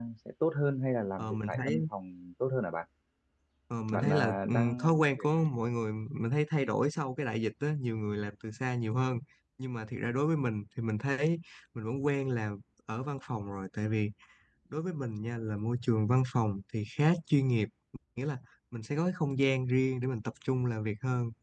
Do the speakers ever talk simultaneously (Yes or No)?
Yes